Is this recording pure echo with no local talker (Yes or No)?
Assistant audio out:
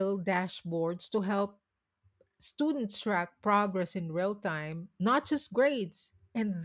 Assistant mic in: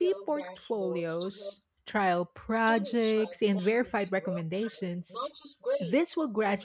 No